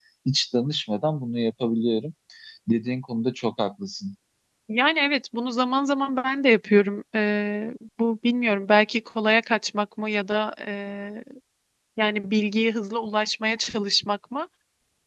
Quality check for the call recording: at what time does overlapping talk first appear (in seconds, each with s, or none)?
none